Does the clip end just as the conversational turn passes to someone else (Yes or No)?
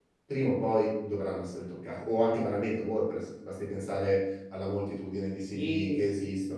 No